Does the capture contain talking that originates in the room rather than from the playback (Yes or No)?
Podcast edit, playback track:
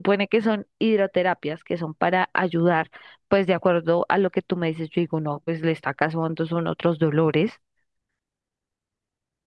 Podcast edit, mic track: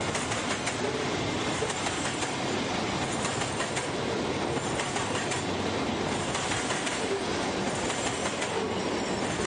No